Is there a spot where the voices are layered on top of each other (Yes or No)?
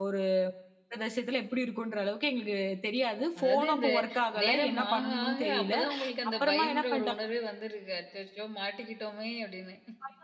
Yes